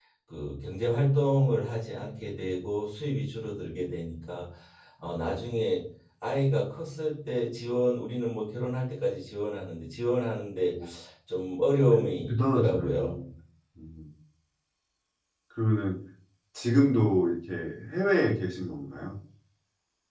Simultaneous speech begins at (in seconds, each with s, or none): 11.9 s